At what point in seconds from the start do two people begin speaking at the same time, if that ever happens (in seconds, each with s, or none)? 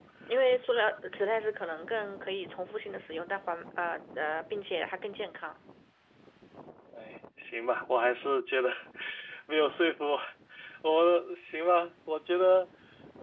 none